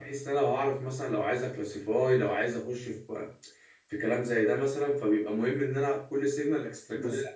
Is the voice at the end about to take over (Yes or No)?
No